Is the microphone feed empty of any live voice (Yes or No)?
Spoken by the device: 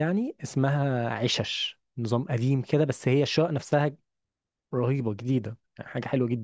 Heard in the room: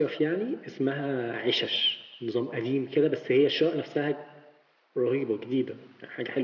Yes